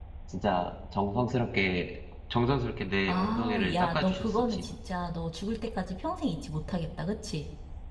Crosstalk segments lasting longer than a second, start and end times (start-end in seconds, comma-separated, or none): 3.1-4.7